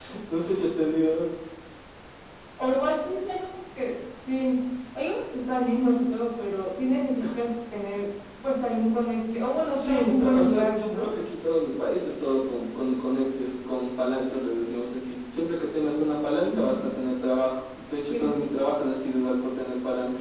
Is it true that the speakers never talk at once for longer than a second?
No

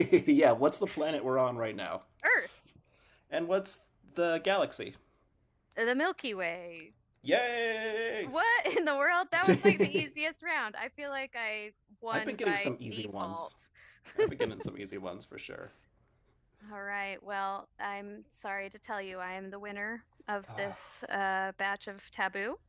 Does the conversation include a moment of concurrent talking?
Yes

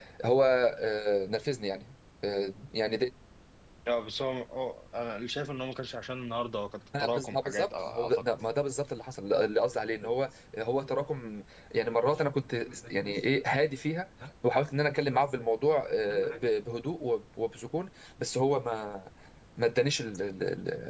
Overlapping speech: Yes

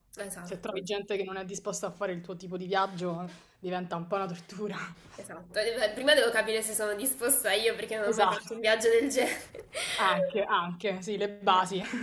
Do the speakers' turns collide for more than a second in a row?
No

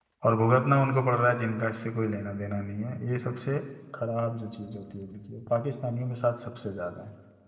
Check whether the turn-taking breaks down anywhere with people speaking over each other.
No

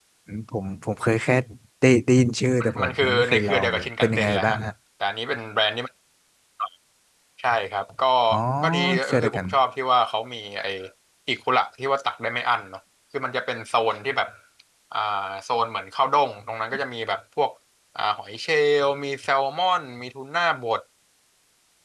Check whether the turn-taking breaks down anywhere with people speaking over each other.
Yes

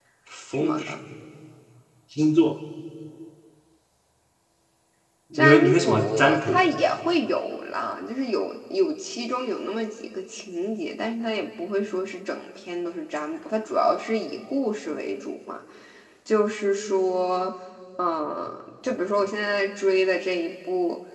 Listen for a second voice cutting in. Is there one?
Yes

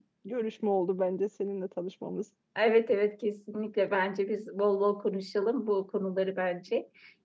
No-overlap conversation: Yes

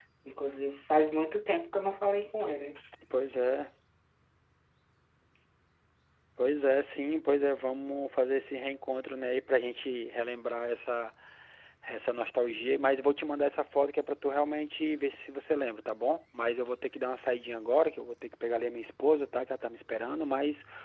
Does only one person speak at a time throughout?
Yes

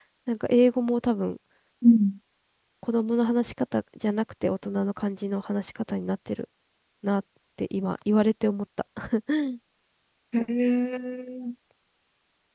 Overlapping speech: No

